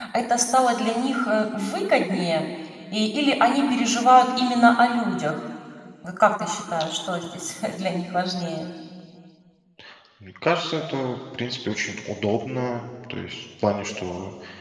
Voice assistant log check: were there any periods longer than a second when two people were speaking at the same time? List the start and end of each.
none

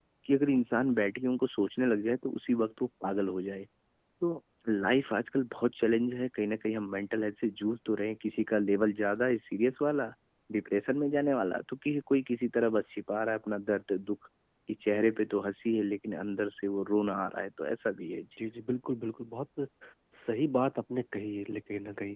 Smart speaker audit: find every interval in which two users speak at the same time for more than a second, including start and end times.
none

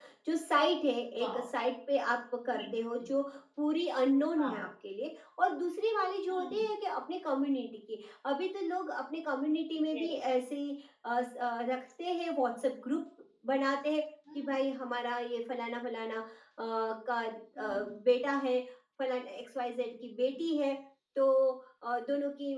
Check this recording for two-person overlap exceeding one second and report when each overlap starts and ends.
none

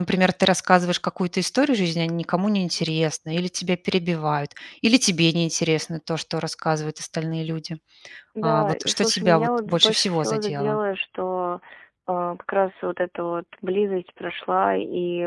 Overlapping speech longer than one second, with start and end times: 8.4-10.8

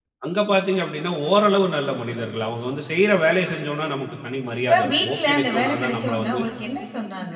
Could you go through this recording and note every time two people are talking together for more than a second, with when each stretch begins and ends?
4.6-6.4

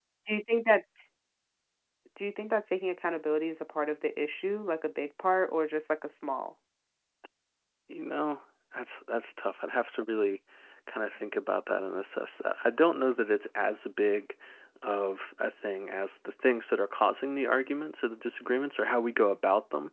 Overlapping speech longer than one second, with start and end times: none

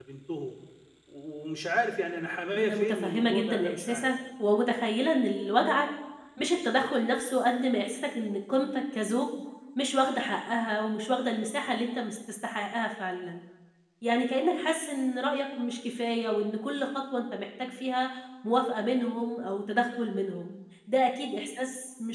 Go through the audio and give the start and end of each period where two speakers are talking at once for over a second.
2.6-4.1

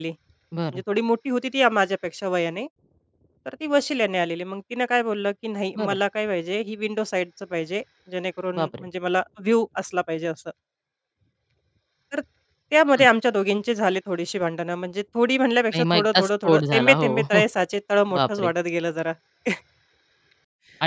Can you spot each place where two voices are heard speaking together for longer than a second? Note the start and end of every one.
15.7-17.4

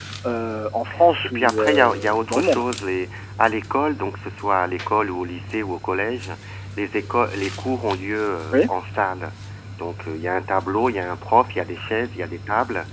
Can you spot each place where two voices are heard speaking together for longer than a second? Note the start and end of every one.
1.4-2.6

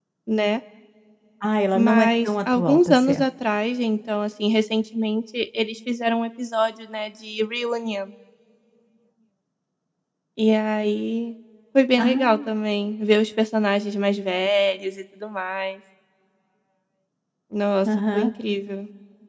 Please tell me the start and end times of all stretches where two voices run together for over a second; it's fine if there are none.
1.7-3.2

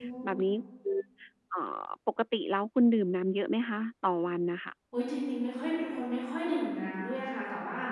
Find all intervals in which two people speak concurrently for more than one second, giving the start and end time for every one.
none

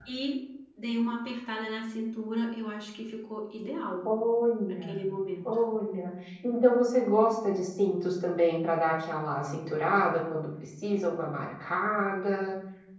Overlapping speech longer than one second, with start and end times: none

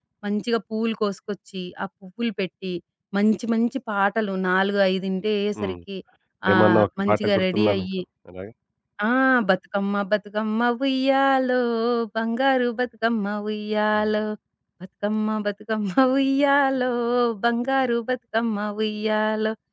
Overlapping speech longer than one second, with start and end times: 6.5-7.9

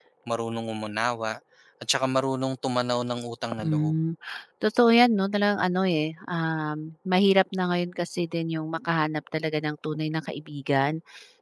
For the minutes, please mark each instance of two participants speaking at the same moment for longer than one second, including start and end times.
none

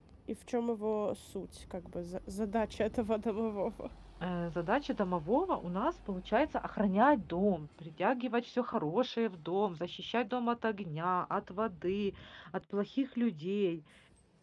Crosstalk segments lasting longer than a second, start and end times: none

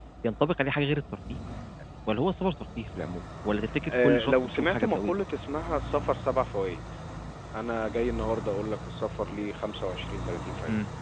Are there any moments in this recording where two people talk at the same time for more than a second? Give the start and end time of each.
3.9-5.1

